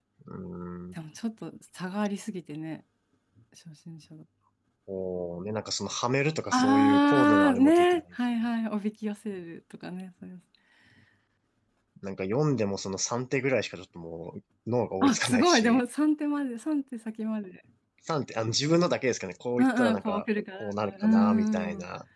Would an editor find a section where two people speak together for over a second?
Yes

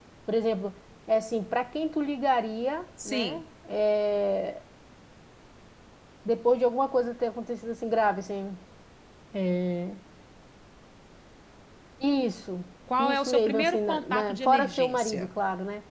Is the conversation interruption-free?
No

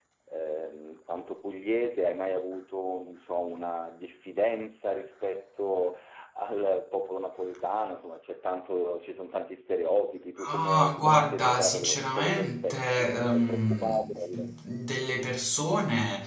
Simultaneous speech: Yes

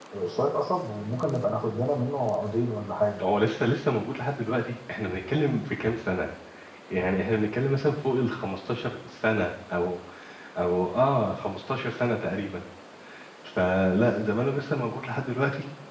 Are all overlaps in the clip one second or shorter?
Yes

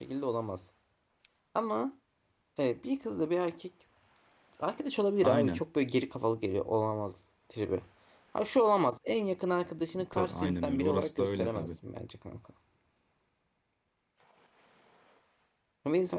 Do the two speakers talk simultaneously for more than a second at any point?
Yes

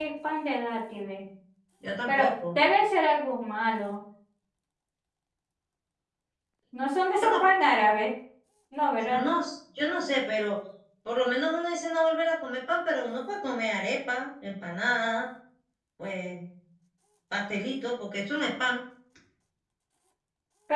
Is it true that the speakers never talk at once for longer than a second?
Yes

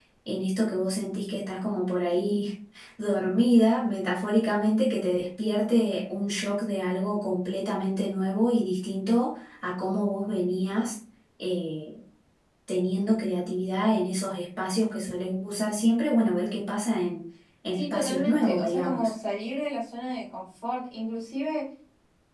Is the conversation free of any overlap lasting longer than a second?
No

